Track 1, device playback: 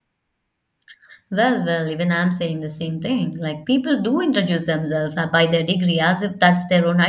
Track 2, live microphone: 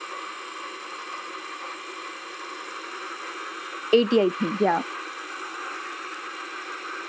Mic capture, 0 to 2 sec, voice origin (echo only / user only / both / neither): neither